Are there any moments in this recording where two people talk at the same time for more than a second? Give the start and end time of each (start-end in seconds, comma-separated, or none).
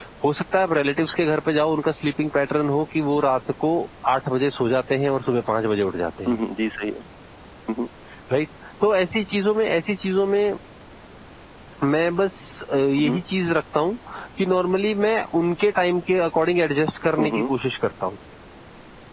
none